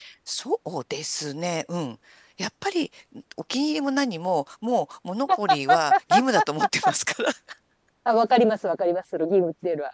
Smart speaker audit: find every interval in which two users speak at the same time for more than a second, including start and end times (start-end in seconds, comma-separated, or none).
none